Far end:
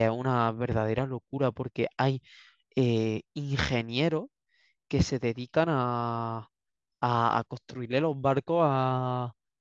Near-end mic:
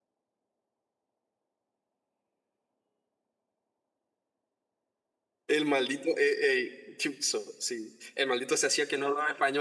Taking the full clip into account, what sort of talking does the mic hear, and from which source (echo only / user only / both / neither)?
user only